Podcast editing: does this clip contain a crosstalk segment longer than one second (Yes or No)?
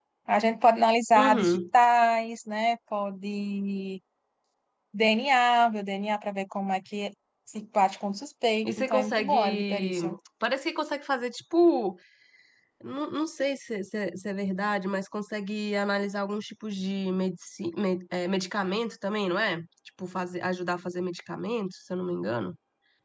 Yes